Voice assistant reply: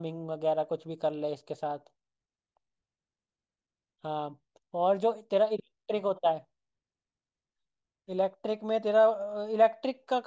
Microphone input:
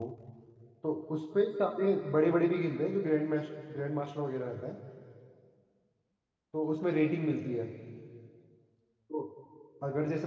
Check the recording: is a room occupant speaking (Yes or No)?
Yes